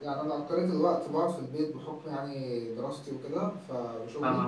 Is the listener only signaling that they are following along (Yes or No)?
Yes